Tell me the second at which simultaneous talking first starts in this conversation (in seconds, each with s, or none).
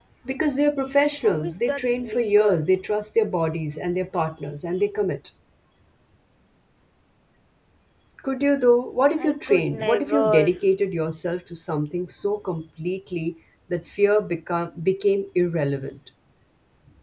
1.2 s